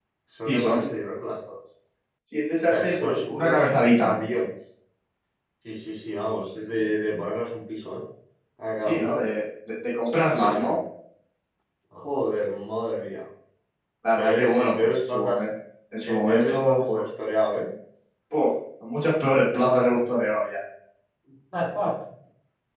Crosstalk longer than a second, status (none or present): present